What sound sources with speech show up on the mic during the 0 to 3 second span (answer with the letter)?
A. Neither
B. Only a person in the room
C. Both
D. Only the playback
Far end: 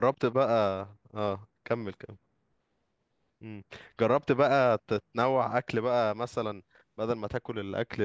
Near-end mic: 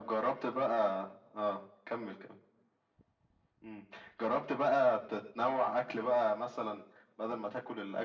D